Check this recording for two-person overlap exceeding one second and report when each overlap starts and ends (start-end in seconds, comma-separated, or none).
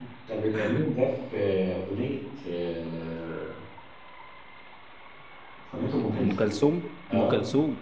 none